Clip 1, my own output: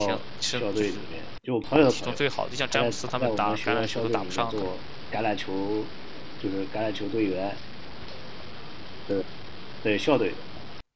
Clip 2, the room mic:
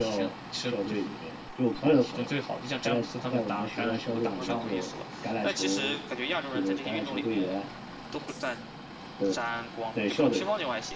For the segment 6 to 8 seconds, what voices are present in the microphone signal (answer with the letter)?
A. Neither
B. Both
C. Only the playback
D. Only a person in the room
B